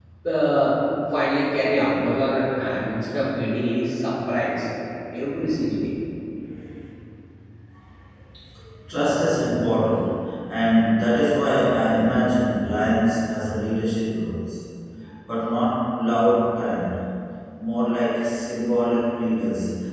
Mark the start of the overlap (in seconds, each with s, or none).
none